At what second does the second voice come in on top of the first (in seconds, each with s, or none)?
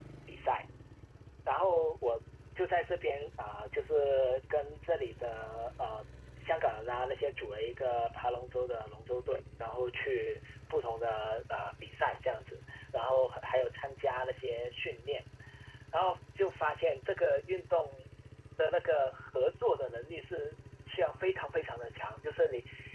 none